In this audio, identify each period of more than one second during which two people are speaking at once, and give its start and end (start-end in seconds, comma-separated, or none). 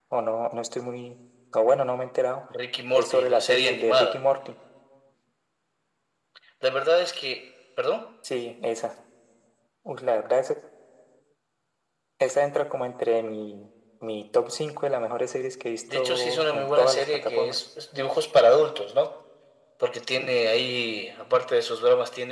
2.9-4.2, 15.9-17.6